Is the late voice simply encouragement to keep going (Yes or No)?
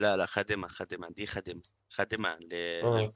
Yes